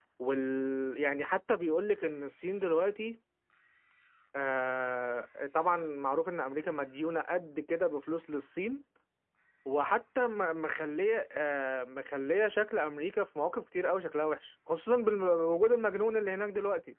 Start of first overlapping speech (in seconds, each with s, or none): none